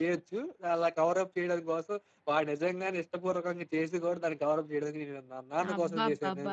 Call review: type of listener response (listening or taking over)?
taking over